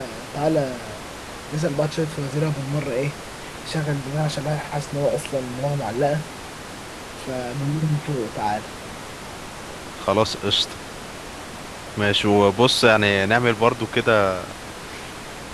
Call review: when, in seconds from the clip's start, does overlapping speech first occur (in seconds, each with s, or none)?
none